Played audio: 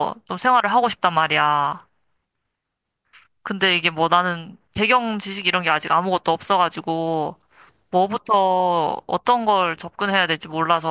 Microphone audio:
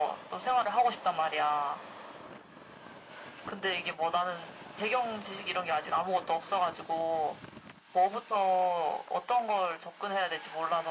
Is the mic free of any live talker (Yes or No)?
Yes